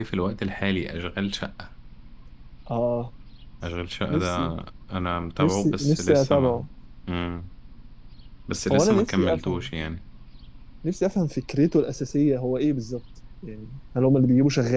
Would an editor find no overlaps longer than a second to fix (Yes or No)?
No